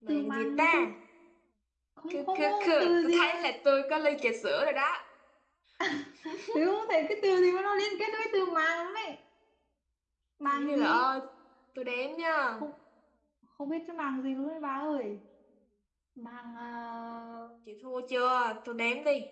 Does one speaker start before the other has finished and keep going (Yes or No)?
Yes